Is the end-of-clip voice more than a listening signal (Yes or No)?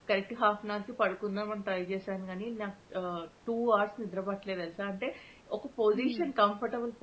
No